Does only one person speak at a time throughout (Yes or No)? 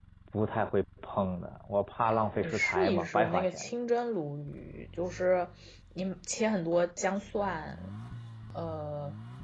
No